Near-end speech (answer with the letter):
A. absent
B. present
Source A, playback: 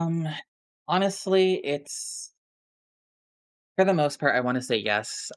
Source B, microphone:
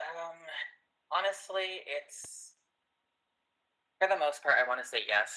A